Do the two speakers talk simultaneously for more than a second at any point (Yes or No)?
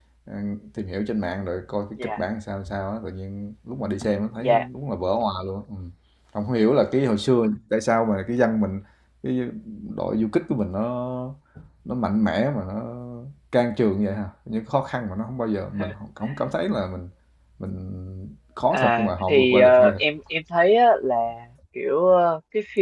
Yes